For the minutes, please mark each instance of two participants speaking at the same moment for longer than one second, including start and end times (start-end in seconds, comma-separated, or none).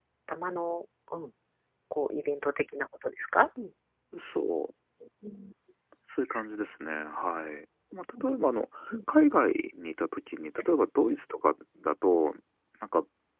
none